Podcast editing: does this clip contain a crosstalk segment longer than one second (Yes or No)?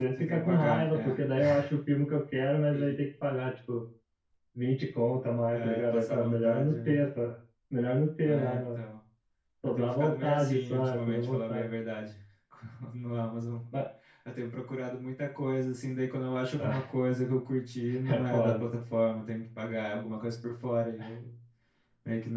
Yes